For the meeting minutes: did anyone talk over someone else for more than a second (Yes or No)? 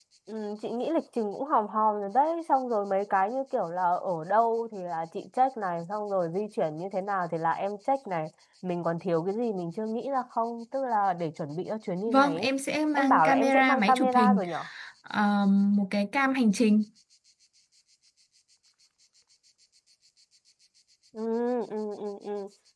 Yes